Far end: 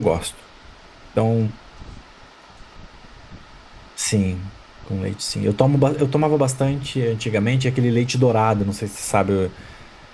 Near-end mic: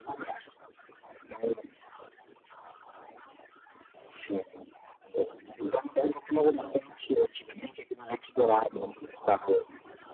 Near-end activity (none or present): none